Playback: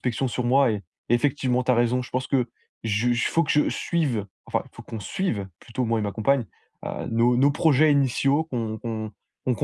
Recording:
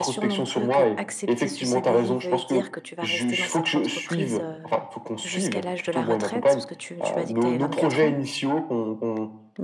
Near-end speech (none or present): present